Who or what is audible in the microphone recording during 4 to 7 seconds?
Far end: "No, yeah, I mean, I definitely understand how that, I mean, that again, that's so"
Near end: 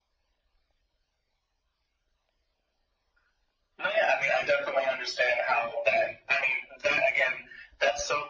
echo only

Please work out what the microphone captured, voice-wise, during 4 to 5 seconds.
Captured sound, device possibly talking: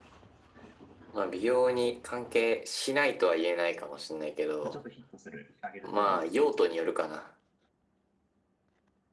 both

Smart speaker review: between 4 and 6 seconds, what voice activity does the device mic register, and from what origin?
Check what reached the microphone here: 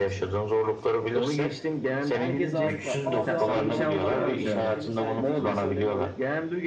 both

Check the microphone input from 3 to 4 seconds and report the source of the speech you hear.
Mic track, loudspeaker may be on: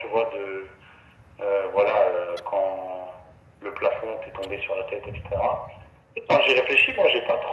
echo only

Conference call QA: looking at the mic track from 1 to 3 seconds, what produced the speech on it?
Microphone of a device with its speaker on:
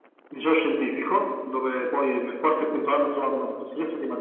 echo only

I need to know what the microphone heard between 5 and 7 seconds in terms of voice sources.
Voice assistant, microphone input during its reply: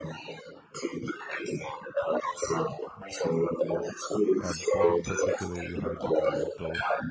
both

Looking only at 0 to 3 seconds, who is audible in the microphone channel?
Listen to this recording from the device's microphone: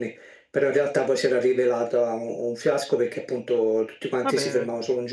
echo only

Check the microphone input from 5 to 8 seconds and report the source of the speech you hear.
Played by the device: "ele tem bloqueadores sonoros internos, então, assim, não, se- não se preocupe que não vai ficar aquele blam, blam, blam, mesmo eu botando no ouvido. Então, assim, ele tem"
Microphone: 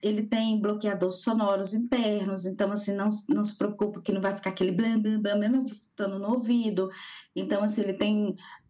echo only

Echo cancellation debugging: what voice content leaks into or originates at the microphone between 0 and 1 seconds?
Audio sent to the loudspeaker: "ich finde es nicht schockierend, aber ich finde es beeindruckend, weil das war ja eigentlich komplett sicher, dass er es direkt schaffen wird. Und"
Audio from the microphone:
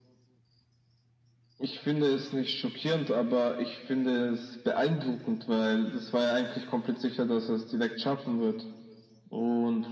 neither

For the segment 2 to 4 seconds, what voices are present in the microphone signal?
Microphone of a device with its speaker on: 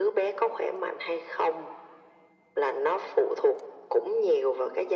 echo only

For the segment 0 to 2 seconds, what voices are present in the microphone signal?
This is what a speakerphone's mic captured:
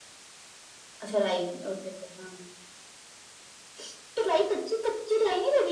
echo only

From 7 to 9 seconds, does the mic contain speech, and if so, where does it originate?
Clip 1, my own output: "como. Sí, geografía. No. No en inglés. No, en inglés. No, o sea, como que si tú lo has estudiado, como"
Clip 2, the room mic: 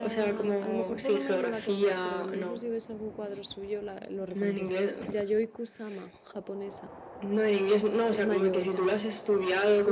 both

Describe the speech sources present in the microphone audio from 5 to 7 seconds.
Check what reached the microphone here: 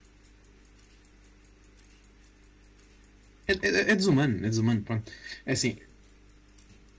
user only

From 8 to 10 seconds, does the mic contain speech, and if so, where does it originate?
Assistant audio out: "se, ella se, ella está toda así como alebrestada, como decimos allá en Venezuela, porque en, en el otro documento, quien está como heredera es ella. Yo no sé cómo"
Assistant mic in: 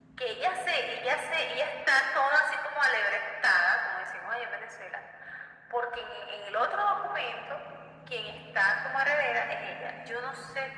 echo only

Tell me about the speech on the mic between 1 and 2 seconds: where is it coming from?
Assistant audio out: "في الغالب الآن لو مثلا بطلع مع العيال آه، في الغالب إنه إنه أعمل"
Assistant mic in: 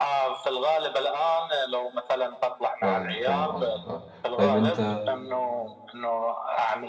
echo only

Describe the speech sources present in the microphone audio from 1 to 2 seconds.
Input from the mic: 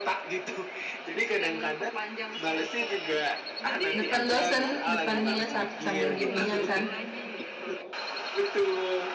echo only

